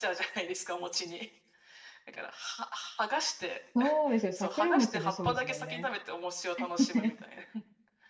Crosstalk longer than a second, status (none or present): present